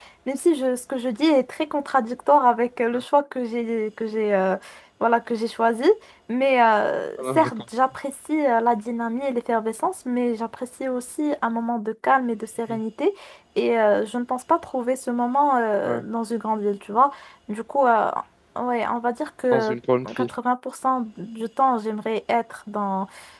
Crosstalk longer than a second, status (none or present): none